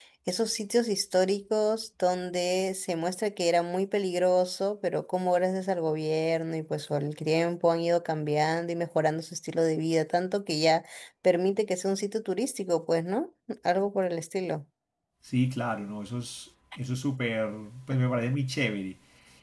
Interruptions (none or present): none